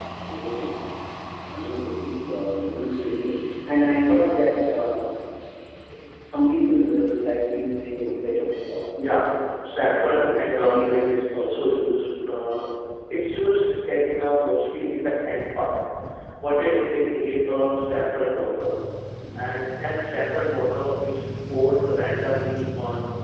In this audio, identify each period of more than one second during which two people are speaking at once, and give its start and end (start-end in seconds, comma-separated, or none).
9.6-11.0